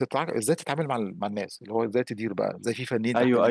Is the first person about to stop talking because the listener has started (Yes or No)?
Yes